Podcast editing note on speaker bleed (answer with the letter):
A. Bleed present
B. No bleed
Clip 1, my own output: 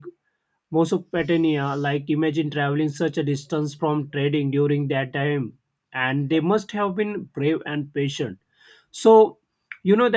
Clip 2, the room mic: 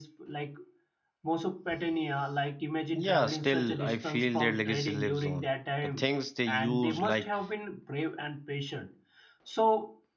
A